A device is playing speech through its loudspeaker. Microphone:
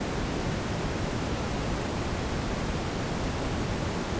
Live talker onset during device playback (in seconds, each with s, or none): none